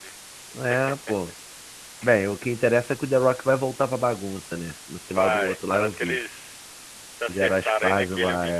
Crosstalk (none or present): present